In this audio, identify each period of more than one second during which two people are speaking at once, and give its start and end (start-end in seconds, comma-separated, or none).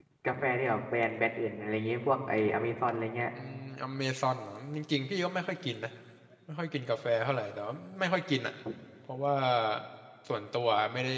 none